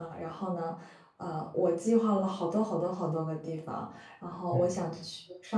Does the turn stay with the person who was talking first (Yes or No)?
Yes